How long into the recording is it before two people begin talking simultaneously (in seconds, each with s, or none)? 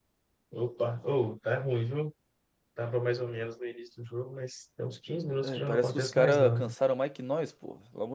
5.4 s